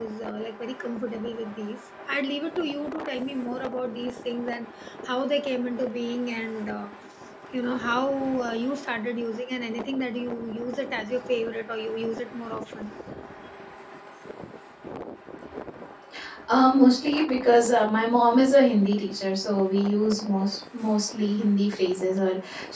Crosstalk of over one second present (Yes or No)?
No